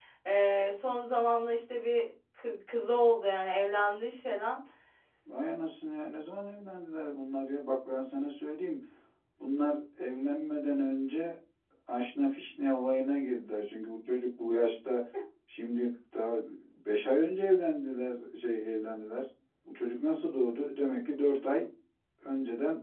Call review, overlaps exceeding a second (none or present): none